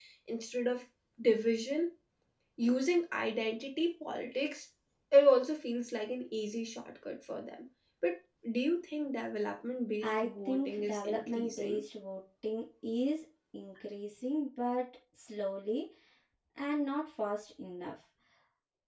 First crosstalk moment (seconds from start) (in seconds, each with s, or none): 10.0 s